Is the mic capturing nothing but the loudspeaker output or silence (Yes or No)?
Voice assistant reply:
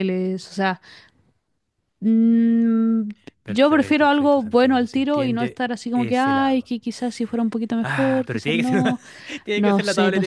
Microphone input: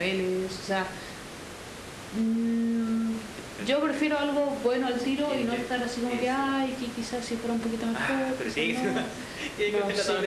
Yes